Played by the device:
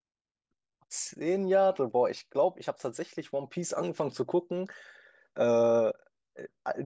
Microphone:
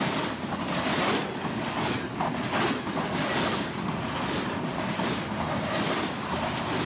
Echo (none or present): none